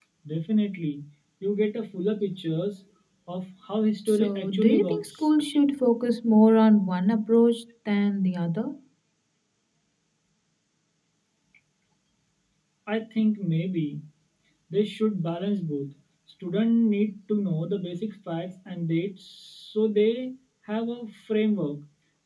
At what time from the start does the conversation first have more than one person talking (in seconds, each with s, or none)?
4.1 s